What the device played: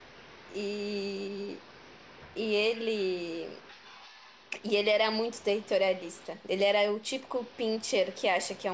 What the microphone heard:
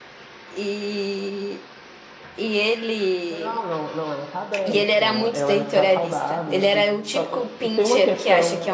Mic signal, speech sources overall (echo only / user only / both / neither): both